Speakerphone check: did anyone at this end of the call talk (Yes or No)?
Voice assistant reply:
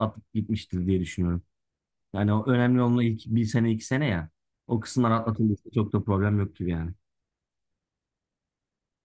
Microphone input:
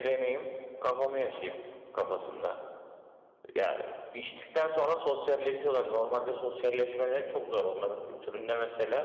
Yes